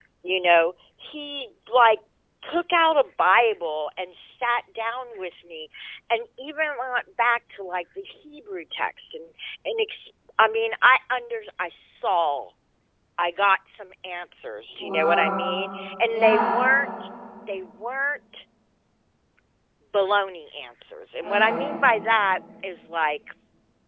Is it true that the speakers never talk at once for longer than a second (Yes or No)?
Yes